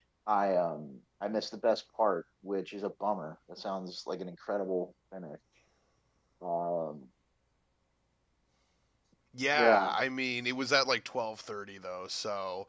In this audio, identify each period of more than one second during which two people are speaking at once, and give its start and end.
none

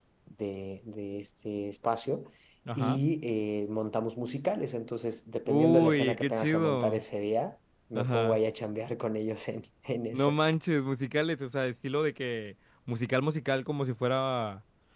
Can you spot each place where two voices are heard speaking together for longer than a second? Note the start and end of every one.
5.5-7.0

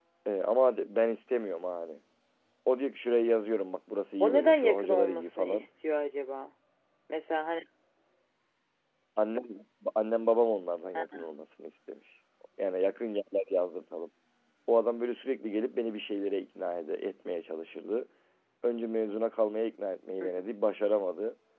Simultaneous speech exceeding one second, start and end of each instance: 4.2-5.7

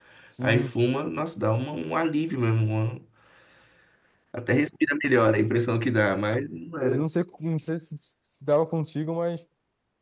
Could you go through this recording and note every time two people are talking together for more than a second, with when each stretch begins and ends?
none

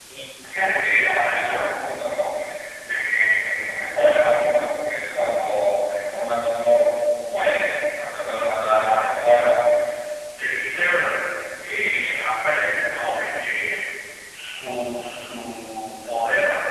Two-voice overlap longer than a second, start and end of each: 0.5-1.8

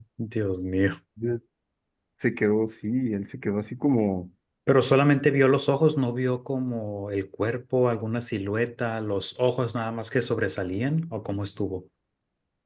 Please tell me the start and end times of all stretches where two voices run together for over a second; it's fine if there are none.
none

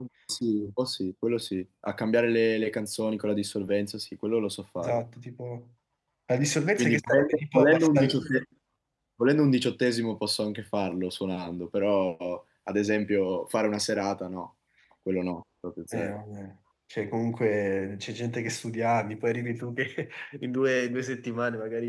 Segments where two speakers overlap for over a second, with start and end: 6.8-8.2

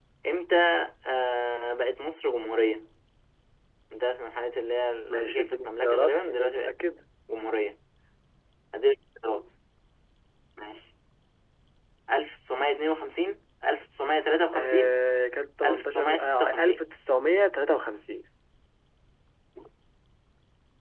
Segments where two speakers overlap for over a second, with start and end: 5.1-6.8, 15.6-17.0

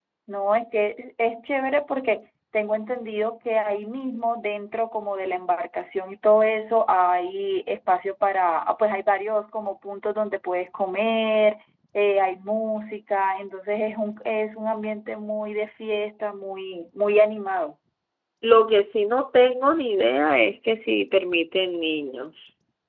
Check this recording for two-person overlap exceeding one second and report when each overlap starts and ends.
none

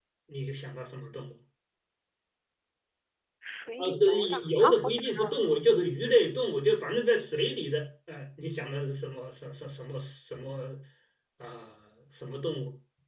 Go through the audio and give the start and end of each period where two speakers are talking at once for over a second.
3.8-5.3

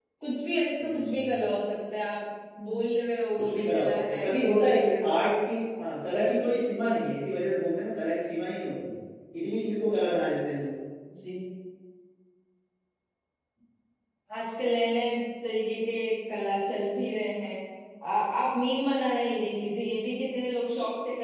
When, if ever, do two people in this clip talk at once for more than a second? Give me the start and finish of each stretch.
3.4-5.0

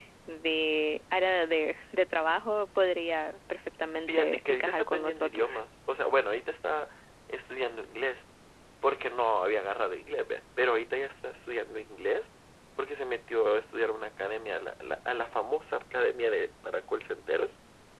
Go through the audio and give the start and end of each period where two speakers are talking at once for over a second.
4.1-5.5

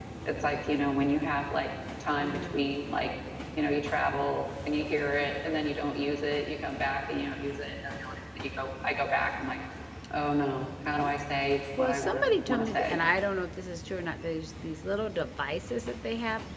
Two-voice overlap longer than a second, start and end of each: 11.8-13.0

